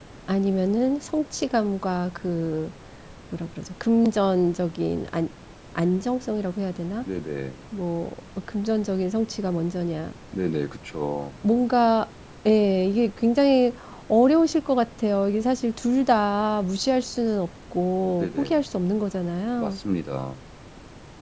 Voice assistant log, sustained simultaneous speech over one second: none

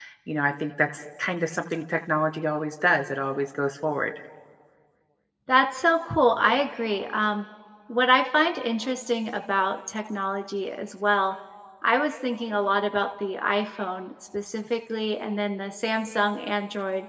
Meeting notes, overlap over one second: none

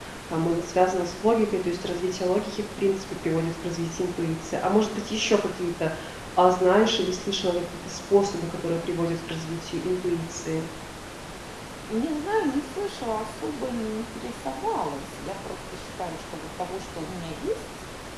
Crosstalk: none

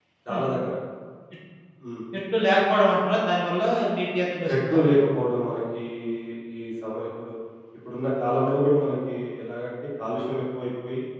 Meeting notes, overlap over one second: none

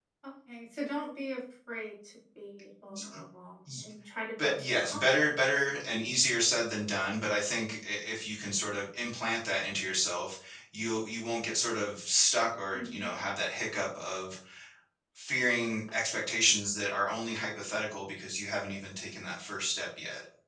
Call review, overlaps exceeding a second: present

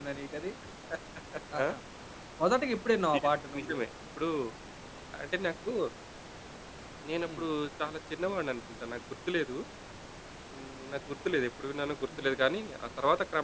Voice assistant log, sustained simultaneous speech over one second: none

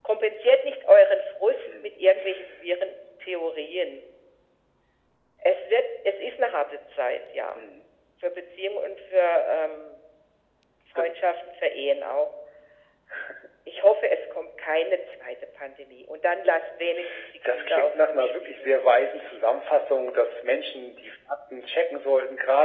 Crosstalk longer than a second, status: present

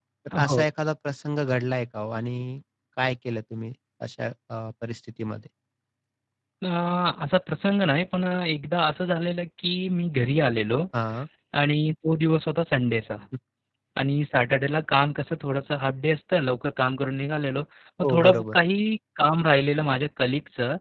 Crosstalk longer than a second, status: none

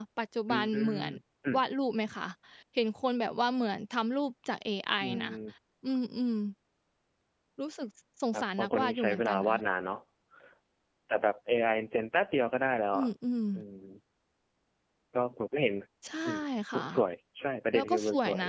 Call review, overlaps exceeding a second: present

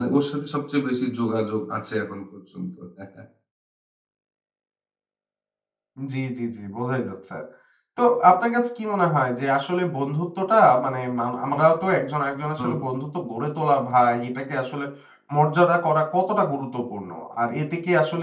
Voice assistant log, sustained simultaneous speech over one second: none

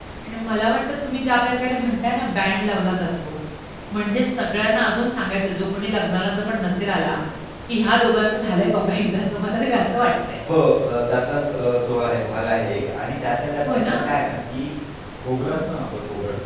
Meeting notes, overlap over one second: none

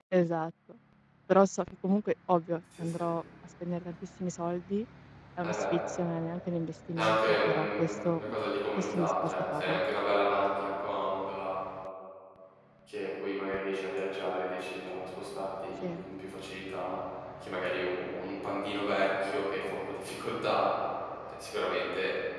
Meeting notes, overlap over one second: present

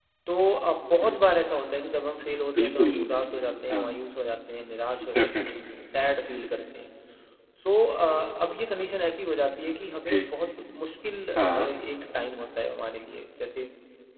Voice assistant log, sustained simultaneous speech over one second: none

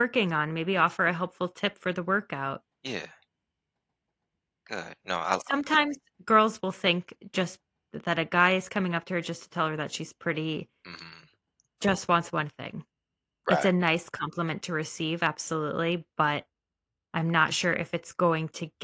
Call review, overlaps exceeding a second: none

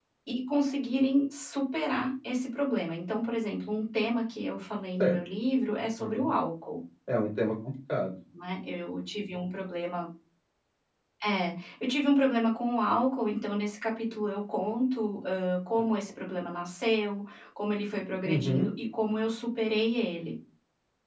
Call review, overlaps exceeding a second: none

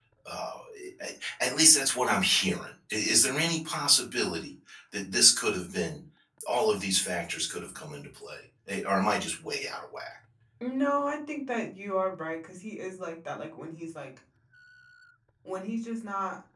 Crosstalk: none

